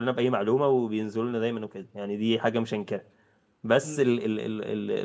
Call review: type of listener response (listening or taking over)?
listening